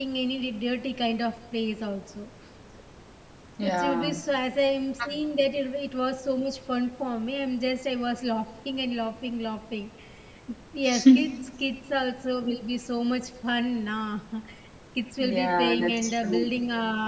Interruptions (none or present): present